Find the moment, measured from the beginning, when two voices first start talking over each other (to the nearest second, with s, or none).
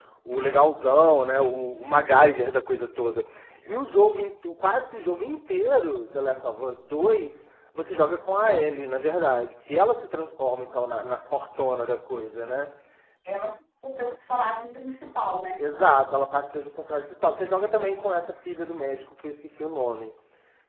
none